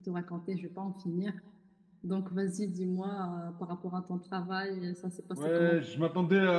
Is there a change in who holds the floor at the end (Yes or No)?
Yes